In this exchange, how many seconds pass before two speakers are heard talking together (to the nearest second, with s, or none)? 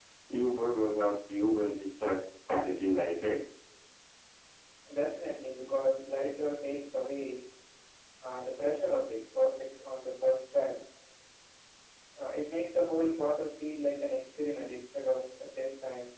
none